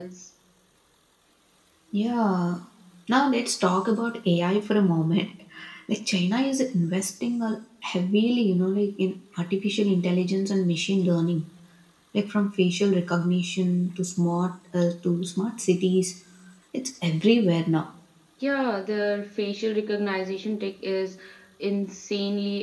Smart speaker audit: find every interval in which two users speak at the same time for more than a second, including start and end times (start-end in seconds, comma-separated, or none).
none